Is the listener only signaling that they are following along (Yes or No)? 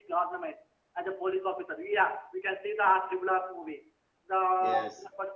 Yes